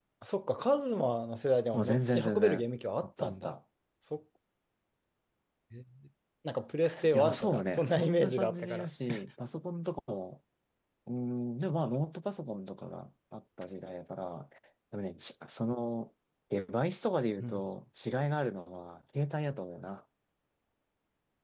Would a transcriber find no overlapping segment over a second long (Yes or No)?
No